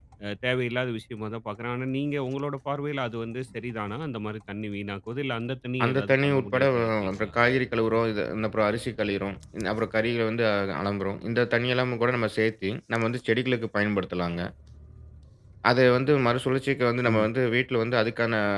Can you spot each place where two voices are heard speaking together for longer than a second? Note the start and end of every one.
5.8-7.3

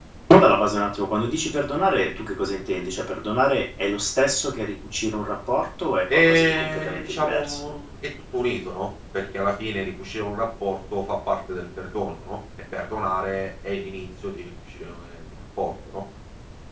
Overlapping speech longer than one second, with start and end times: 6.1-7.6

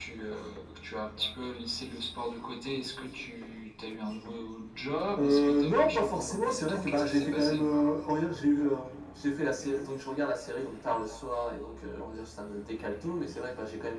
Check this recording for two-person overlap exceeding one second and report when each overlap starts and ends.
5.2-7.6

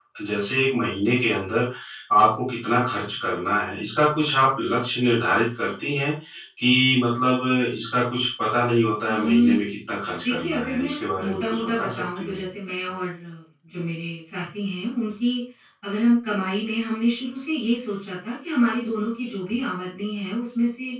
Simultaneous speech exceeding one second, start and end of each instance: 10.3-12.4

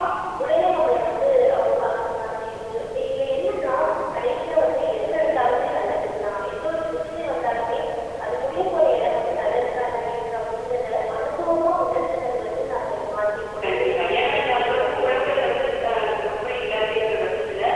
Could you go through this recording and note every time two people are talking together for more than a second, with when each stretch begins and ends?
13.6-15.6

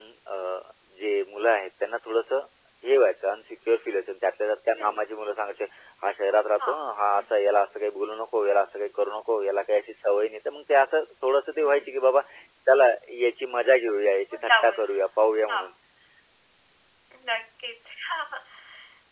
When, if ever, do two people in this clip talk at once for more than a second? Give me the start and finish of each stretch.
none

